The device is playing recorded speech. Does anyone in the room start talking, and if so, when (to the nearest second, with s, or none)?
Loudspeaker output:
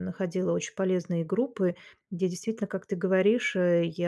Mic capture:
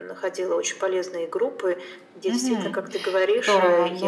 2 s